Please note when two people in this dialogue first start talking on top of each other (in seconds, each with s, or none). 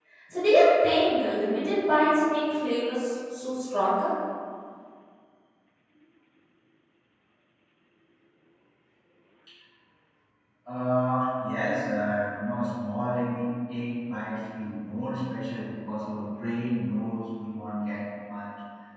none